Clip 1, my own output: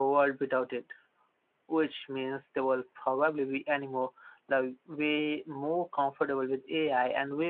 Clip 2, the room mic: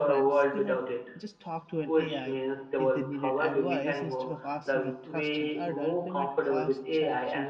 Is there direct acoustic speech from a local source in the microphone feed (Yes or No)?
Yes